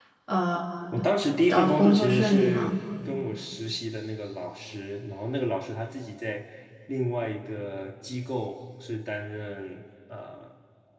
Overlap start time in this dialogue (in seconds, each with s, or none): 1.5 s